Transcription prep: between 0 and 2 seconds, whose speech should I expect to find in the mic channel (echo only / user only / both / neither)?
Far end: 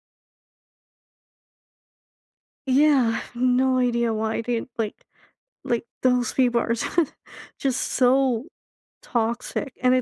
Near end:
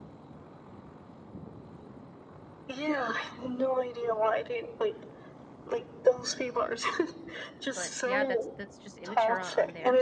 neither